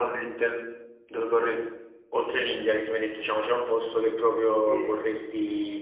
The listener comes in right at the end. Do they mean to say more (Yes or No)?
No